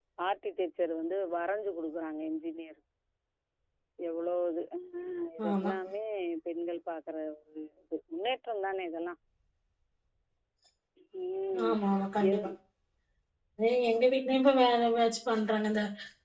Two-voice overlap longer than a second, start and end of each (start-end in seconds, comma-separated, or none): none